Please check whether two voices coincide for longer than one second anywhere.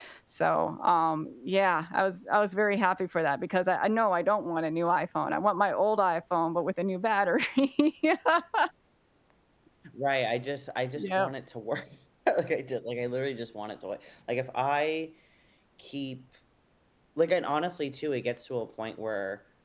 No

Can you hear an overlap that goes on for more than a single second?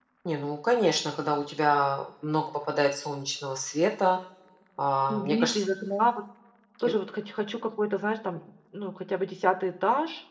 No

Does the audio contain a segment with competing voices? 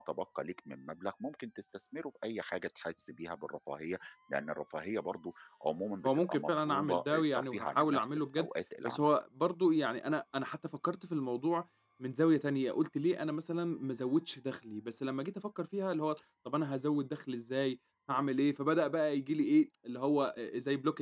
Yes, from 6.0 s

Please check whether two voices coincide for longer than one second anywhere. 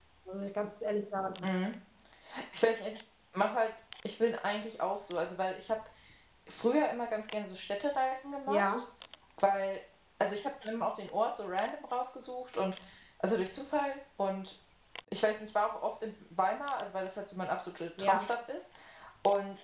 No

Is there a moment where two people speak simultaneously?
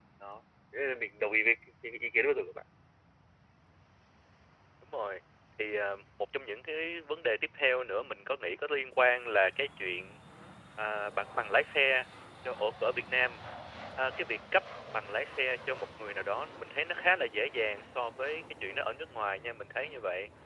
No

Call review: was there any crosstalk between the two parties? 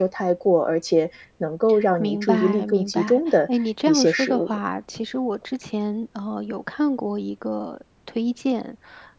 Yes, from 2.0 s

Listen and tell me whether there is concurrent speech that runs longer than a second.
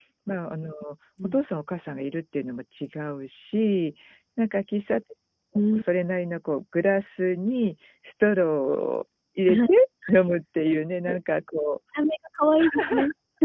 No

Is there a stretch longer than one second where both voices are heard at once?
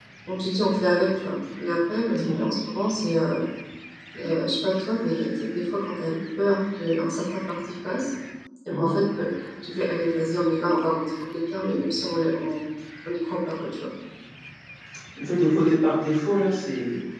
No

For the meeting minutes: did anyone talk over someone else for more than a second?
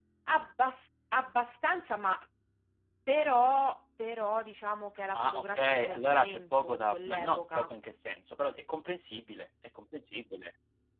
Yes, from 5.1 s

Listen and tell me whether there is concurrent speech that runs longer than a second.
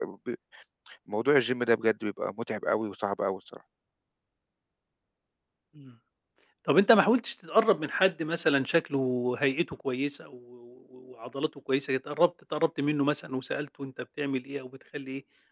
No

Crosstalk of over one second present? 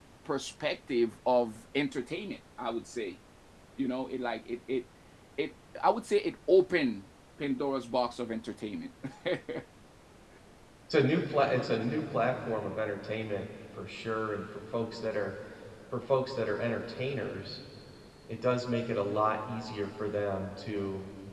No

